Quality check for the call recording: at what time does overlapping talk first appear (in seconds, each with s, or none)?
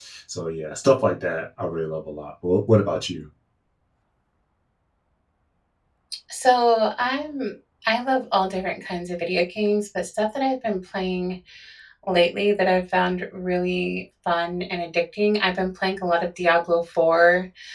none